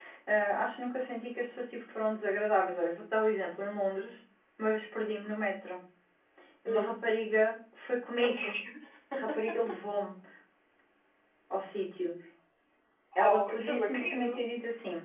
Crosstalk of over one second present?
Yes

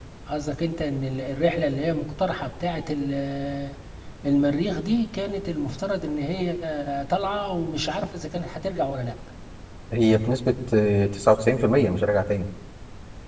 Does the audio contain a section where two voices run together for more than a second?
No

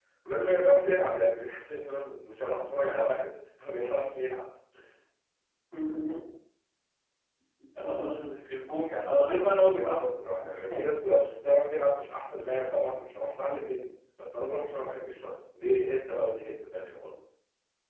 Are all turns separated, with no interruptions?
No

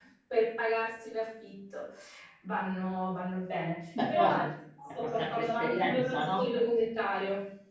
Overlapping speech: Yes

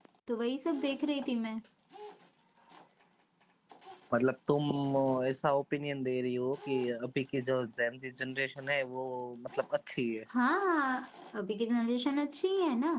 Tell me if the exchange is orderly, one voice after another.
Yes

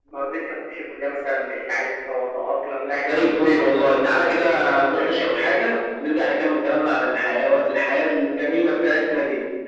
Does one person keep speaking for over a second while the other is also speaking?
Yes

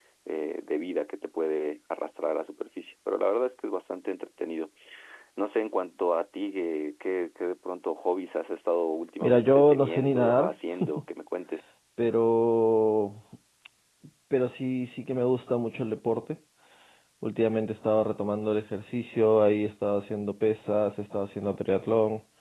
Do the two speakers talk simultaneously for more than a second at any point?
Yes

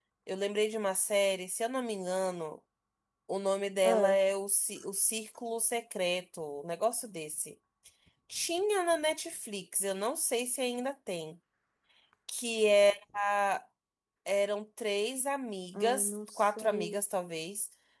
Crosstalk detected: Yes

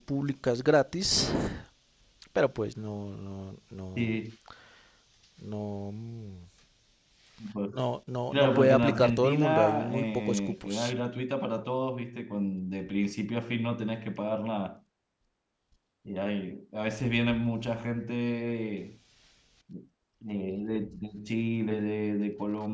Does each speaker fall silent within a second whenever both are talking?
No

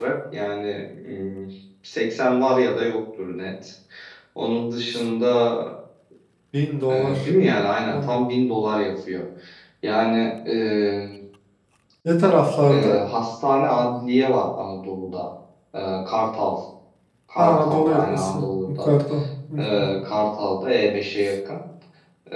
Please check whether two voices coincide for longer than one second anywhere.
Yes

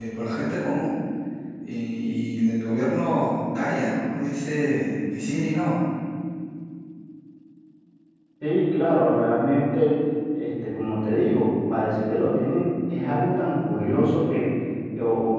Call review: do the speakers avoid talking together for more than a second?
Yes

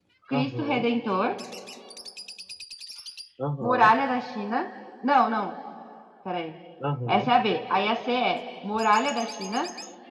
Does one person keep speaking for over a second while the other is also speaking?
No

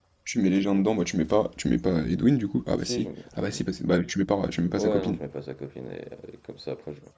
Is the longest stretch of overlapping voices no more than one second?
Yes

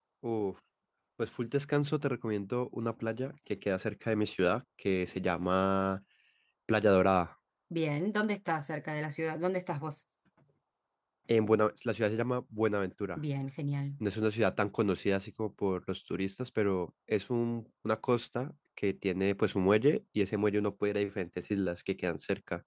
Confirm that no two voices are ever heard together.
Yes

